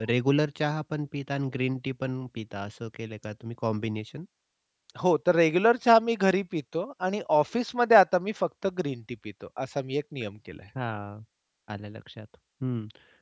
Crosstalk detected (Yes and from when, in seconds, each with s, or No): No